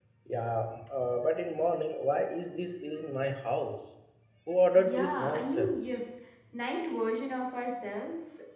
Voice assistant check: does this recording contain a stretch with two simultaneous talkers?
Yes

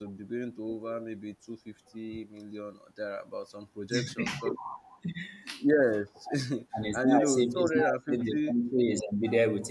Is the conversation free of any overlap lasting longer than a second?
No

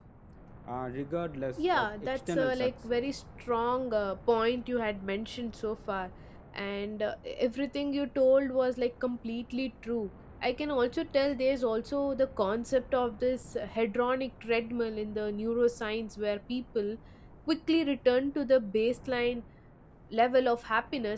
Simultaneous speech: Yes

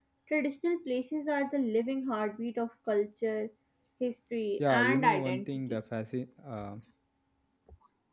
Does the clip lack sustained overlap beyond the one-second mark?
No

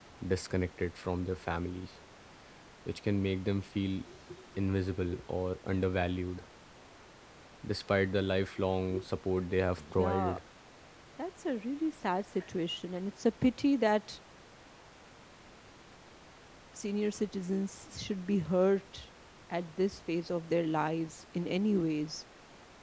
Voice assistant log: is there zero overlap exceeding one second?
Yes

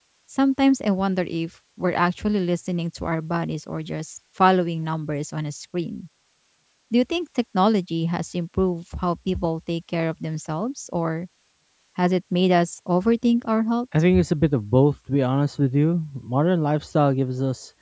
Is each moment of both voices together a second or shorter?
Yes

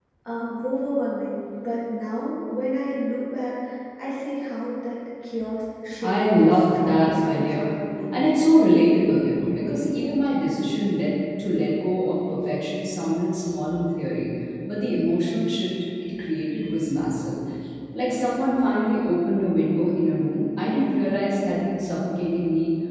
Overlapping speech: Yes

